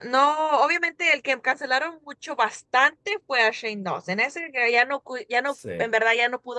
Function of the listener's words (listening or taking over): listening